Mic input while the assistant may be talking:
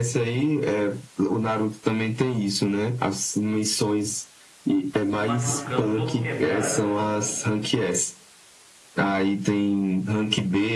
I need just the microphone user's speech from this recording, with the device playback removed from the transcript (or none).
se machucando, todo quebrado.